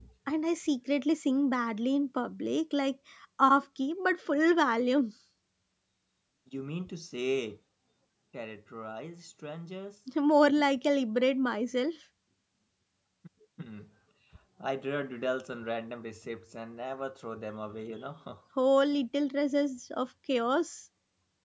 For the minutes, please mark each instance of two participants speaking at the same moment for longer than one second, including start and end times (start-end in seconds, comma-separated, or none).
none